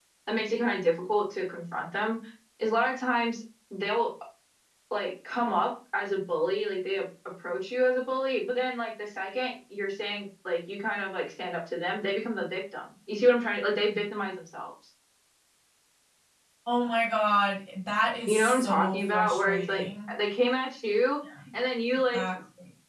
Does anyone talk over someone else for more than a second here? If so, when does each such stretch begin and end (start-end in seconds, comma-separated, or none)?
18.3-20.1